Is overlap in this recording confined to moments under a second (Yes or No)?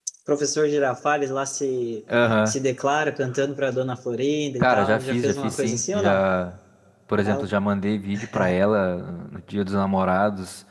No